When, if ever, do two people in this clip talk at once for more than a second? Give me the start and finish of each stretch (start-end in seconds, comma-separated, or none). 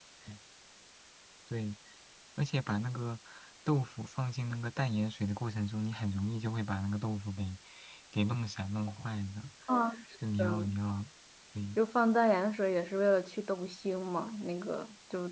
none